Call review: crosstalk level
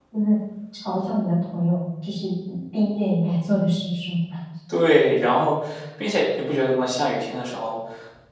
none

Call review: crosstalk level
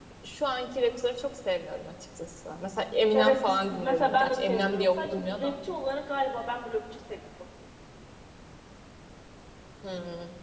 present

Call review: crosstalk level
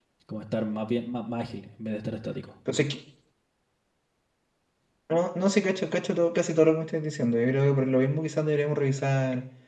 none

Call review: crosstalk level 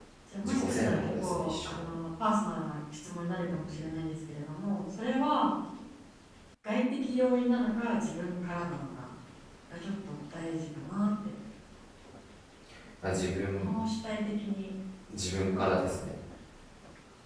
present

